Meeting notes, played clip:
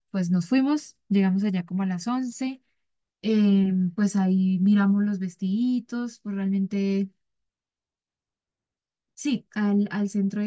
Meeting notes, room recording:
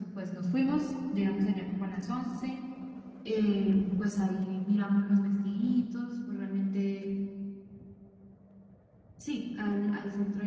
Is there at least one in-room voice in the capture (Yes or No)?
No